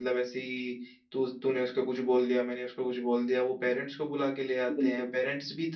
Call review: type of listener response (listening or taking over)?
listening